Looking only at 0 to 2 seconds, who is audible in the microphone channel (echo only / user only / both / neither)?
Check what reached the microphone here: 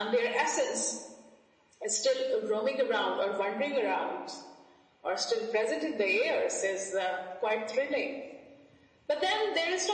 echo only